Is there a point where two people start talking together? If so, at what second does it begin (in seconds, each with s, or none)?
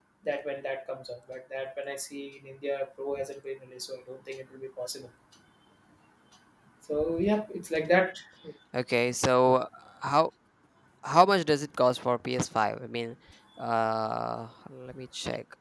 none